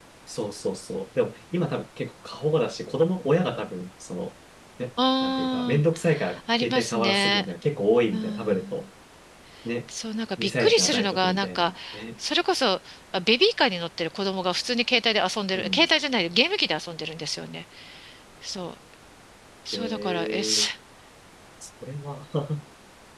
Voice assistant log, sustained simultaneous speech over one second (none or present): present